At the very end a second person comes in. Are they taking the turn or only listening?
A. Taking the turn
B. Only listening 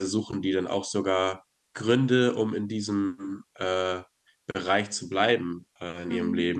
B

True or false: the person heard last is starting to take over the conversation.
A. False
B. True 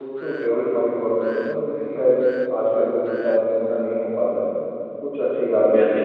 B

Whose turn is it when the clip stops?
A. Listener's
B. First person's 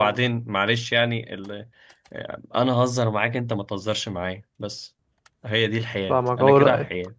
A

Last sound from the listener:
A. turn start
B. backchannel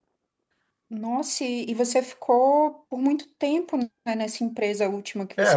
A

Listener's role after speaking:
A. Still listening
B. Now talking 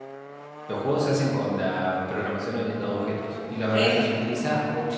A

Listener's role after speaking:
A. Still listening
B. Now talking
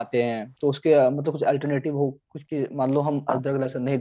A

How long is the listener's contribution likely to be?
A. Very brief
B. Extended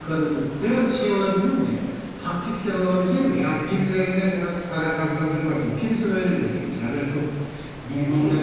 B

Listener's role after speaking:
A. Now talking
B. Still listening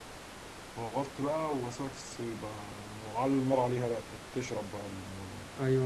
A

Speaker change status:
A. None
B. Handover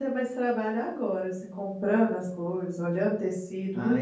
B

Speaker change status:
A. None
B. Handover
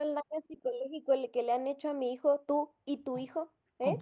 B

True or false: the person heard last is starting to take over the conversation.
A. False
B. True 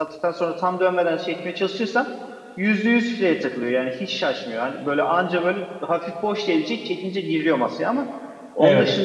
A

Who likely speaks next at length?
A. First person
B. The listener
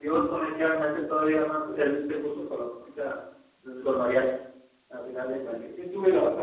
B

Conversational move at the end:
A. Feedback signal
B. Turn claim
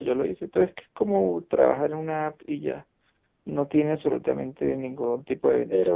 B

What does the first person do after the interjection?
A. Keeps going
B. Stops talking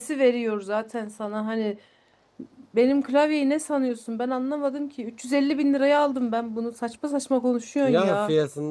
B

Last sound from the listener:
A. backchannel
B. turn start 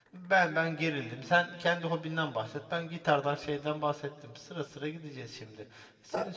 A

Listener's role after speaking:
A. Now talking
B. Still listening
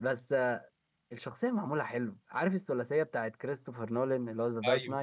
A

